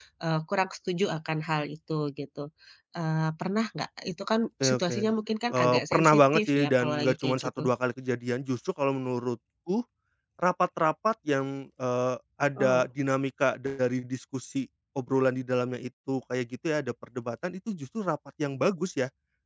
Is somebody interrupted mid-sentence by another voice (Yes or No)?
Yes